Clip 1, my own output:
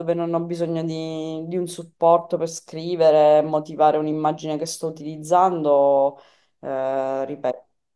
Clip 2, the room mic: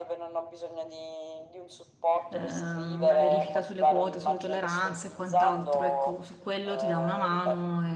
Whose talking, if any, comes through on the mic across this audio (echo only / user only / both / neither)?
both